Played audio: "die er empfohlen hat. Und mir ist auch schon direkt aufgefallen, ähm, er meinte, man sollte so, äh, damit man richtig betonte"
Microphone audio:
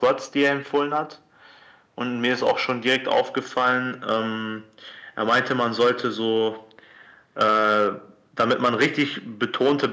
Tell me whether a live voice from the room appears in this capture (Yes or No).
No